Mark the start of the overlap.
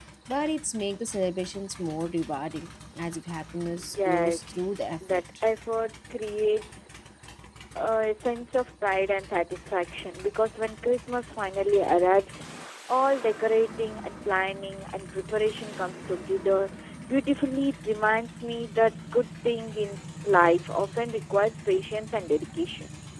3.8 s

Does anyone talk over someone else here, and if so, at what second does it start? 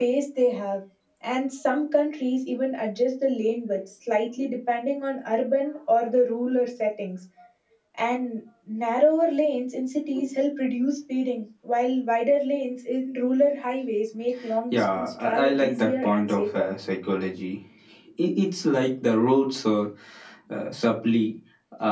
14.7 s

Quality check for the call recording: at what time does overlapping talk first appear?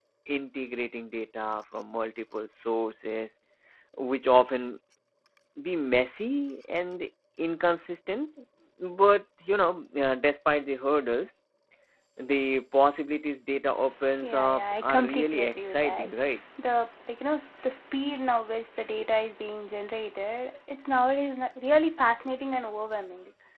14.1 s

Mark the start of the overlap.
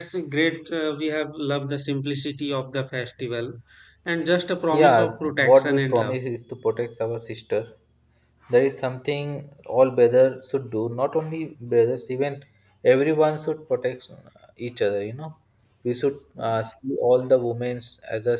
4.7 s

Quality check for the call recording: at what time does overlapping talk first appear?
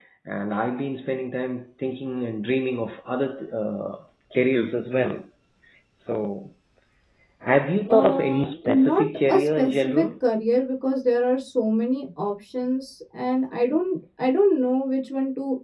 7.9 s

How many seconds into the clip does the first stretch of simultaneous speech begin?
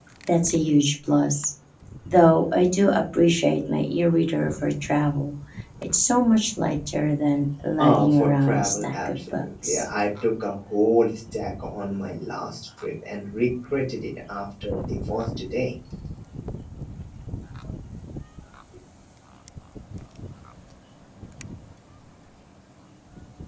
7.8 s

